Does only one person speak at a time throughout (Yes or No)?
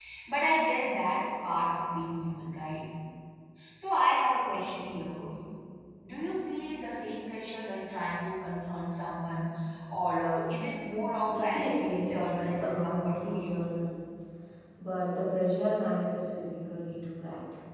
No